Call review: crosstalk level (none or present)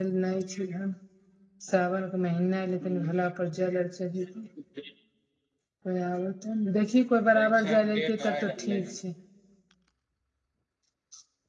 present